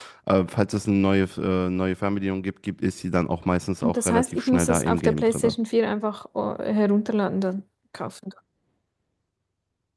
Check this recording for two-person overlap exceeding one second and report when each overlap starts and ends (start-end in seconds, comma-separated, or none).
3.8-5.5